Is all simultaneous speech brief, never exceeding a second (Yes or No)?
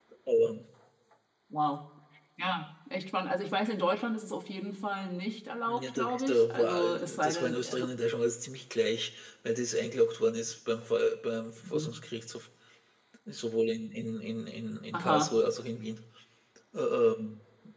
No